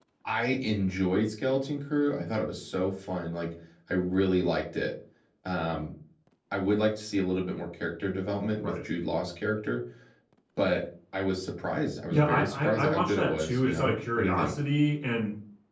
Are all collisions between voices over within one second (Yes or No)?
No